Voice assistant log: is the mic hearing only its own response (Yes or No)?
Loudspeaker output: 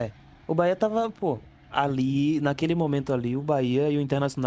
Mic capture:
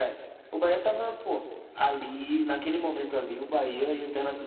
Yes